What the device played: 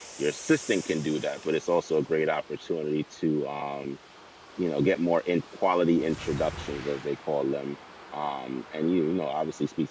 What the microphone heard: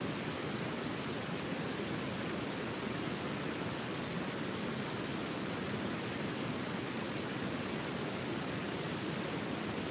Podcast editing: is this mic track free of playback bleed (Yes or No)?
Yes